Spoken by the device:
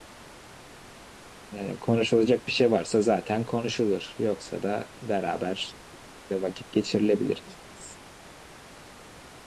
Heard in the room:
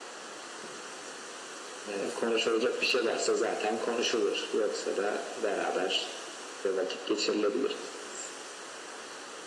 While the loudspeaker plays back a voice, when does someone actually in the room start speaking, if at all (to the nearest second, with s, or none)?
none